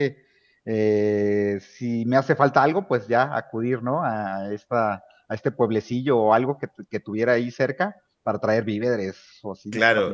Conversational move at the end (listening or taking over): taking over